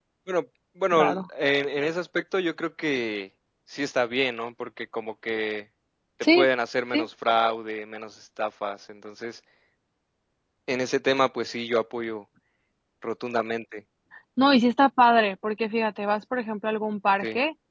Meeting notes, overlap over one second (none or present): none